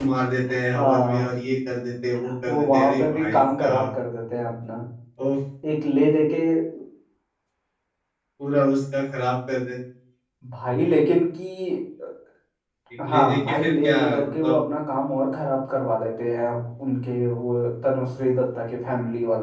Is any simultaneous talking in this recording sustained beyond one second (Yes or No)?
Yes